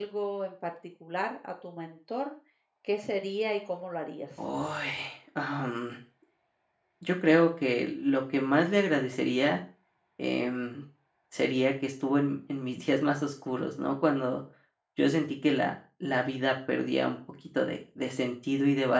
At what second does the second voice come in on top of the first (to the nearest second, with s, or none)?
none